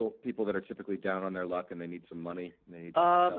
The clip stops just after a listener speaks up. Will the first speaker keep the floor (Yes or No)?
No